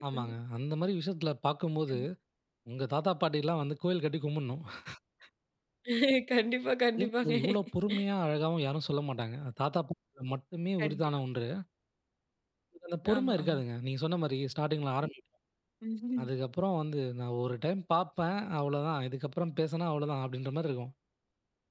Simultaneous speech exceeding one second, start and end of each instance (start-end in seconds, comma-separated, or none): none